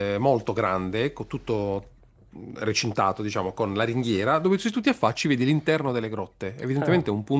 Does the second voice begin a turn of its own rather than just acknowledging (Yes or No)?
No